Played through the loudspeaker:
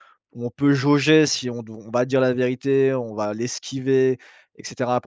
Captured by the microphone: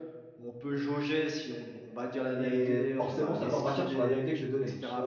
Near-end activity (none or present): present